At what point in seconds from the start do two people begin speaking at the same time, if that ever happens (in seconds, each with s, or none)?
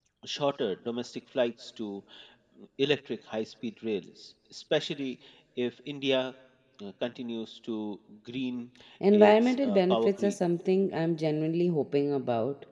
9.1 s